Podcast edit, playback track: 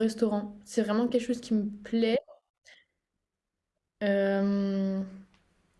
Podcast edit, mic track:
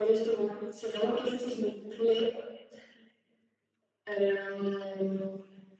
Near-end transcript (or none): none